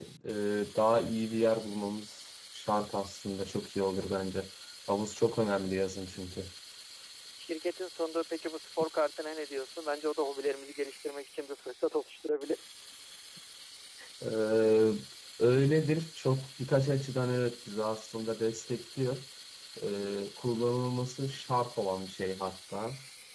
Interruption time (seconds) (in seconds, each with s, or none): none